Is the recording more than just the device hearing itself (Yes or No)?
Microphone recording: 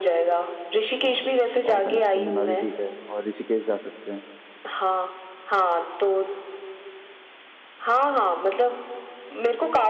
Yes